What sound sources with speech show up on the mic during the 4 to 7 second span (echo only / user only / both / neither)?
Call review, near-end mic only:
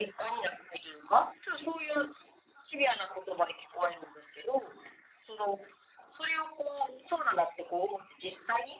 echo only